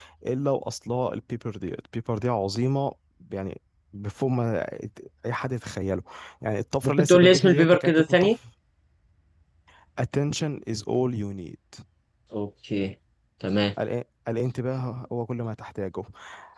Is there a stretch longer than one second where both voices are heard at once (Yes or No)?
Yes